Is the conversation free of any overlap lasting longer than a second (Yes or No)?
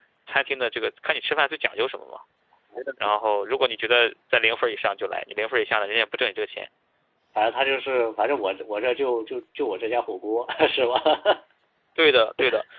Yes